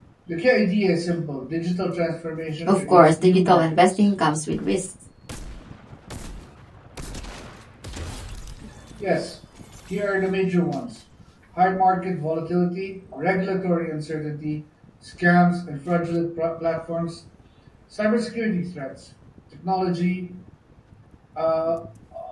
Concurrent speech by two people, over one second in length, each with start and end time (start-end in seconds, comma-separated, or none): 2.7-4.1